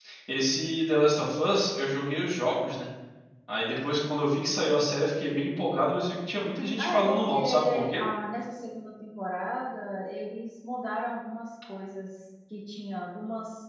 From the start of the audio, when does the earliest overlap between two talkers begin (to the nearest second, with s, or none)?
7 s